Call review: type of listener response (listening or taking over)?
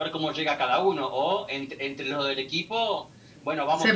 listening